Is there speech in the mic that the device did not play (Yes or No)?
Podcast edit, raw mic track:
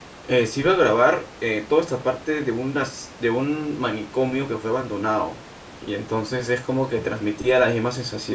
Yes